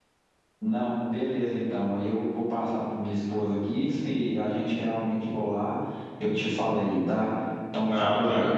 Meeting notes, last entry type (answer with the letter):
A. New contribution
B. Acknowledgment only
A